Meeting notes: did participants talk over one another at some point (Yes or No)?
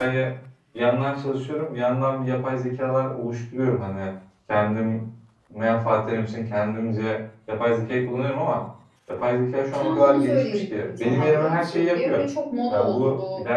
Yes